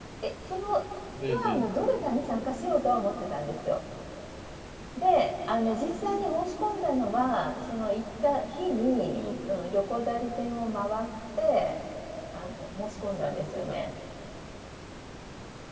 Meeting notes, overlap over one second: none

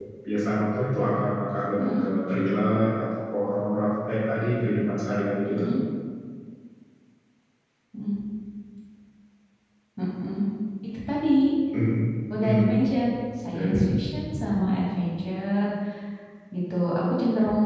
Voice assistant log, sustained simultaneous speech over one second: none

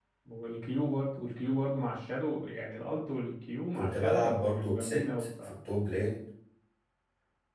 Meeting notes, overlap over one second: present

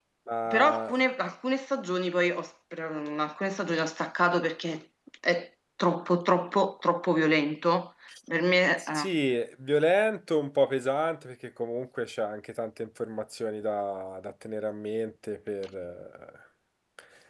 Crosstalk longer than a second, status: none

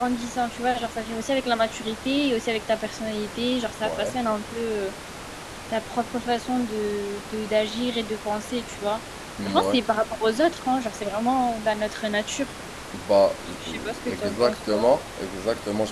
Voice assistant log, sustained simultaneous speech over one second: present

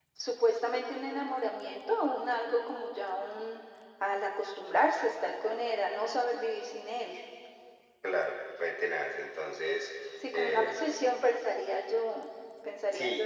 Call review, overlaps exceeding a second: none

